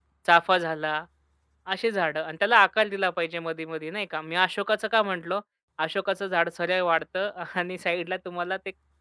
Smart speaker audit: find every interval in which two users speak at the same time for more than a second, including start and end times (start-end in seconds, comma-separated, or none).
none